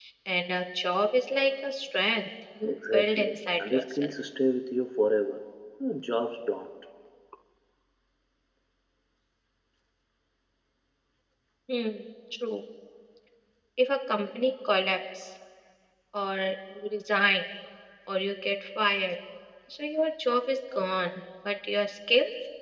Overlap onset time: 2.6 s

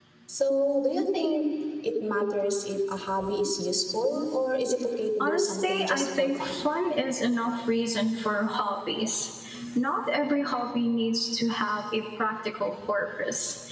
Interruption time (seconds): 5.2 s

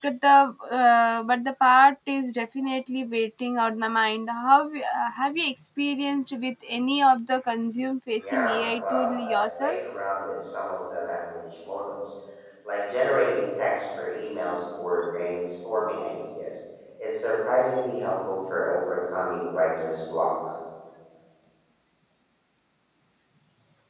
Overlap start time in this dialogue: 8.2 s

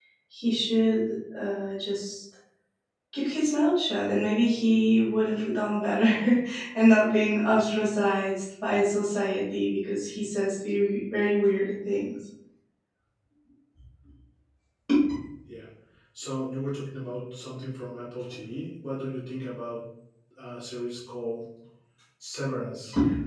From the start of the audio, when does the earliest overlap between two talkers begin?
none

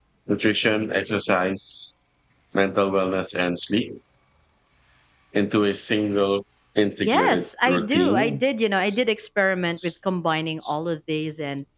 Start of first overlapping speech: 7.0 s

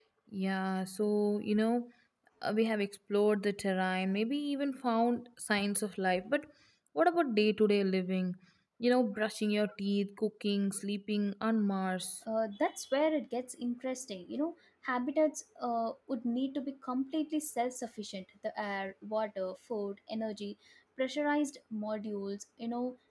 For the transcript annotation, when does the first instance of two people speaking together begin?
none

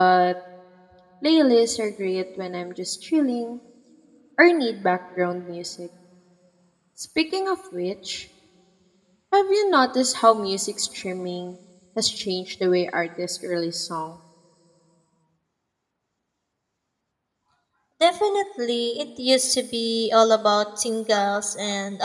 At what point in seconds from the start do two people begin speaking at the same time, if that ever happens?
none

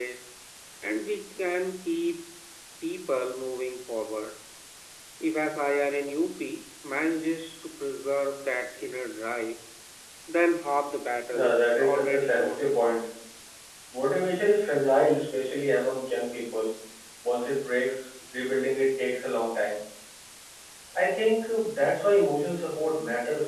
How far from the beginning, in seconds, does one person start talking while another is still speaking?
11.3 s

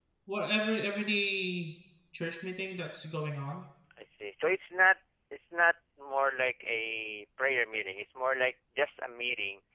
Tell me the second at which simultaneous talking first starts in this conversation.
none

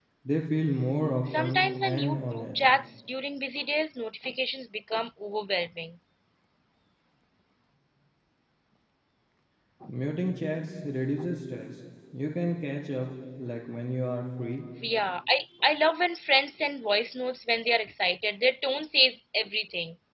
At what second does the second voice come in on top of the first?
1.2 s

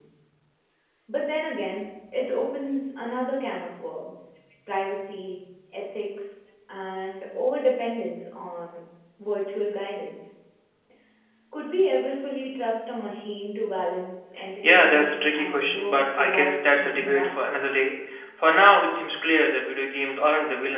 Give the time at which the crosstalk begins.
14.6 s

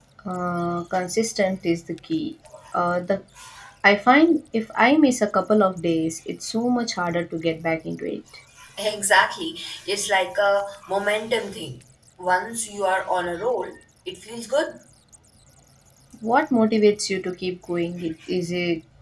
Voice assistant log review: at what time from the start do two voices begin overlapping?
none

